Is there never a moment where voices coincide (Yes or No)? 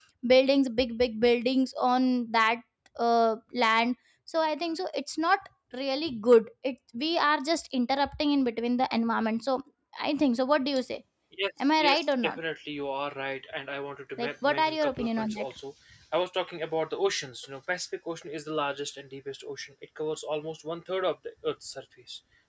No